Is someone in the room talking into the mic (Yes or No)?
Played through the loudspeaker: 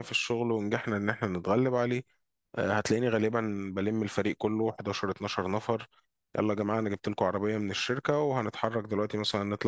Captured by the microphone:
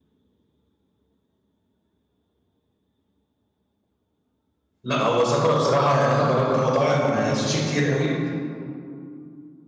Yes